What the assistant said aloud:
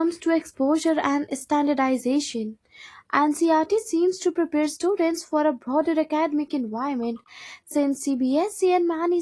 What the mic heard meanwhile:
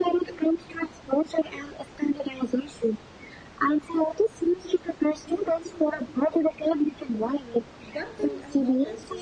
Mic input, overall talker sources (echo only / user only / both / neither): both